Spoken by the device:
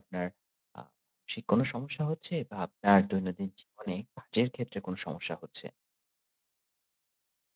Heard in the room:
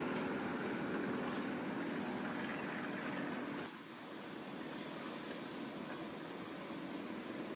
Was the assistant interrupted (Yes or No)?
No